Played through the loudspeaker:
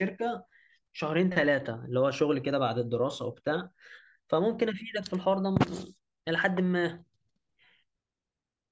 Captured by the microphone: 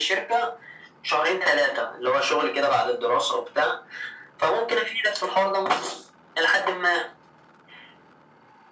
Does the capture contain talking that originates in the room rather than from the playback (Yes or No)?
No